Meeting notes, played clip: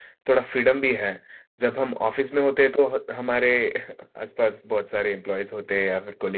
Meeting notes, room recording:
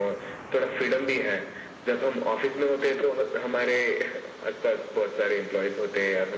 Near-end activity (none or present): none